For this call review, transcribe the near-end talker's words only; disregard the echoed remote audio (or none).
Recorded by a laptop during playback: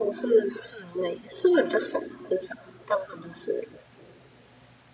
none